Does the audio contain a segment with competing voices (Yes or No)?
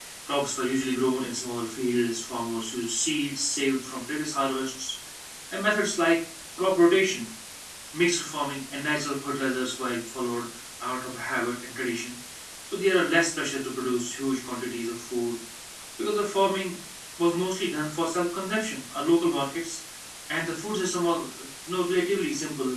No